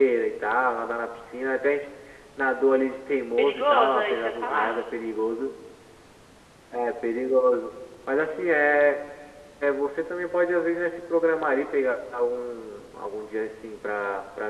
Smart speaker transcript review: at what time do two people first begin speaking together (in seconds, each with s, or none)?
3.4 s